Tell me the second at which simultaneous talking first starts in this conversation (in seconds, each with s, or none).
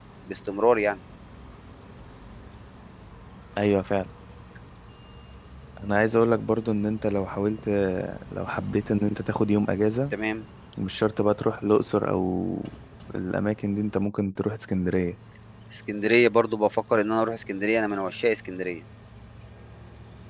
none